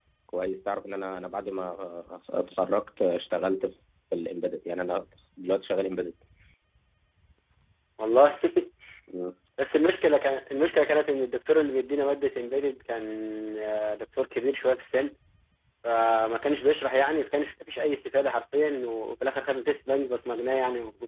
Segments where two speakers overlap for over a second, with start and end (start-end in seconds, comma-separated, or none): none